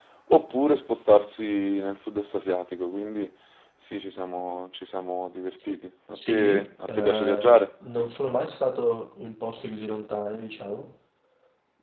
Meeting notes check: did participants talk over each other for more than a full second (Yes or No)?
Yes